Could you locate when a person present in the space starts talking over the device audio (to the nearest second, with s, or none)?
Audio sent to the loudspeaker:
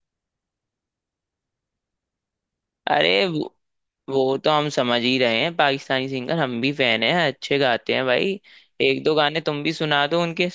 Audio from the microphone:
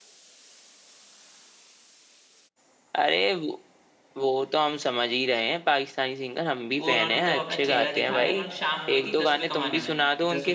7 s